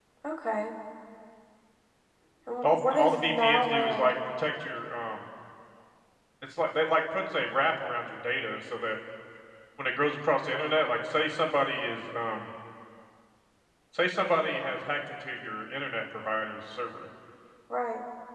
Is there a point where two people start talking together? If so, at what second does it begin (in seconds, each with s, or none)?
2.6 s